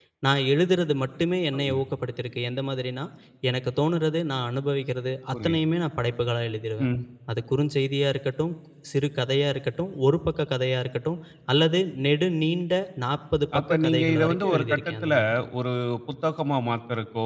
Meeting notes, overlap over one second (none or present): present